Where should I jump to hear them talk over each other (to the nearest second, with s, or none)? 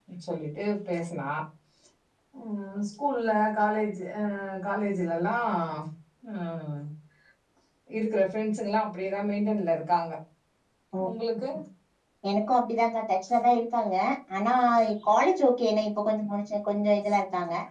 none